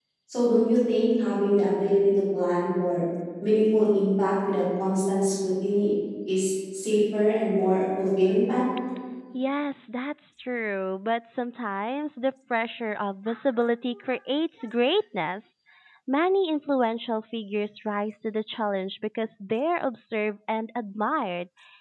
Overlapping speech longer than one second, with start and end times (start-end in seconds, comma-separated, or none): none